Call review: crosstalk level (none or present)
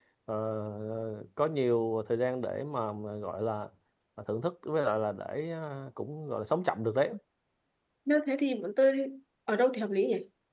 none